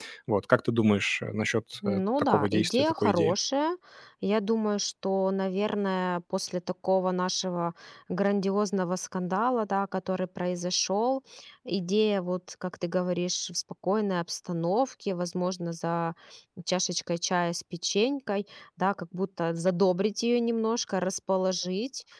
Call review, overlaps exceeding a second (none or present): present